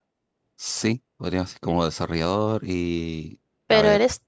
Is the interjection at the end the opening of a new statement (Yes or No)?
Yes